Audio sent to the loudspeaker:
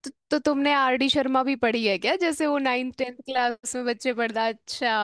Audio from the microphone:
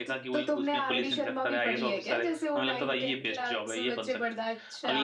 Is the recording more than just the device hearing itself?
Yes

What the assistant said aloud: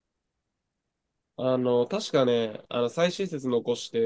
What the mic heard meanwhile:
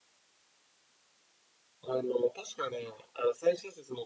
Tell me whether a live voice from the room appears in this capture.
No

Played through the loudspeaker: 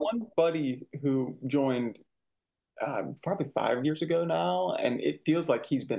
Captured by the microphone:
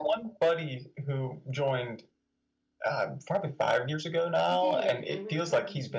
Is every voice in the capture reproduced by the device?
No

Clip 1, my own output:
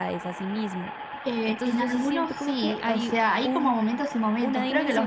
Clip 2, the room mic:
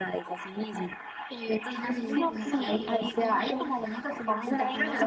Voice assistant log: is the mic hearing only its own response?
No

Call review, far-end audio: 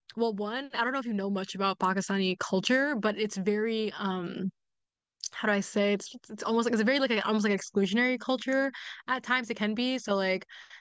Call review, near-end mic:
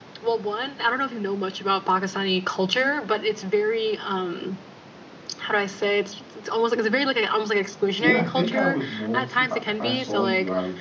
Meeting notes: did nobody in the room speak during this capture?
No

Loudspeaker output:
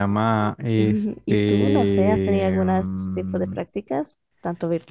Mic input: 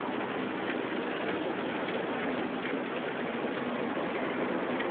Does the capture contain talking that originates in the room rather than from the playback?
No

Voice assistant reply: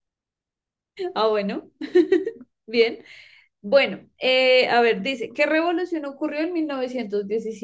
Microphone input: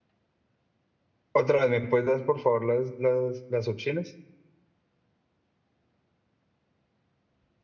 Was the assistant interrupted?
Yes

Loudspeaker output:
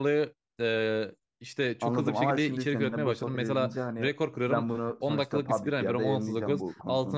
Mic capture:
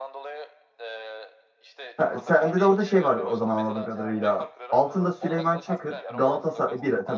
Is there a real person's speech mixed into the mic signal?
Yes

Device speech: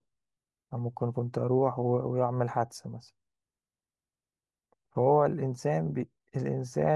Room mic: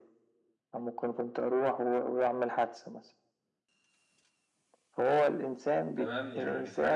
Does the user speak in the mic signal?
Yes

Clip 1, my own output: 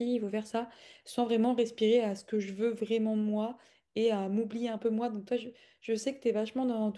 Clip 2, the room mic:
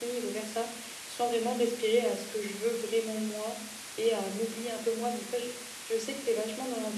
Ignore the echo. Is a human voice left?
No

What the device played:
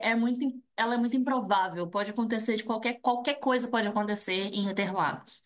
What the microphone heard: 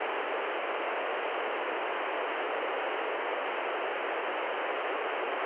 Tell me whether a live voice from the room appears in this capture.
No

